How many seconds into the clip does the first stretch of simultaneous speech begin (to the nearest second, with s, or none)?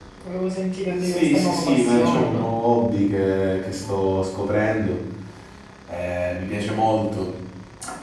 1 s